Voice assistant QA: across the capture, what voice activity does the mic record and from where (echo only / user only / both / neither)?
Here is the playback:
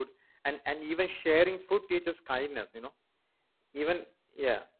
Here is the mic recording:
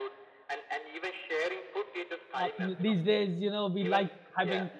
both